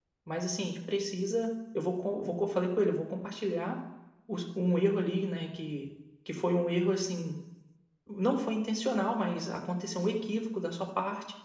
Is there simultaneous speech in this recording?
No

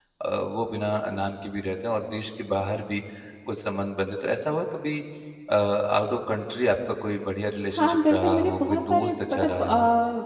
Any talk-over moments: Yes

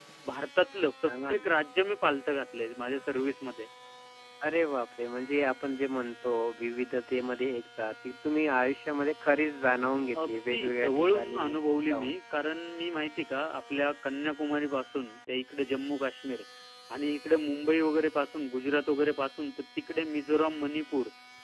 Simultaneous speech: Yes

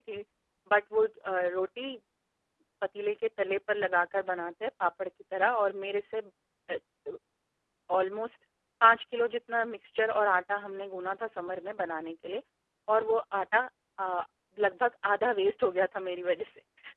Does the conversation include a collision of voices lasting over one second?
No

